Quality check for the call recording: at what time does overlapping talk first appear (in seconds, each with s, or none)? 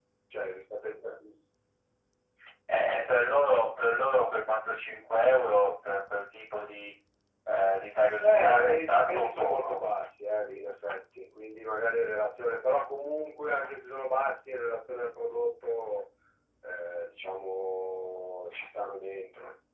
8.2 s